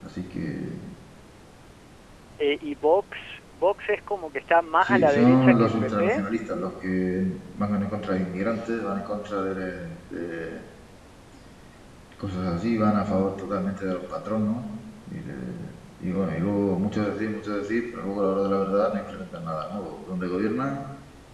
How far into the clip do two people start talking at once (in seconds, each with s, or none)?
4.8 s